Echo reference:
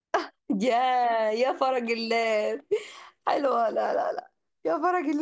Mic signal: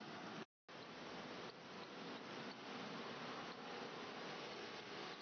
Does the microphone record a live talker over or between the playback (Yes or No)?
No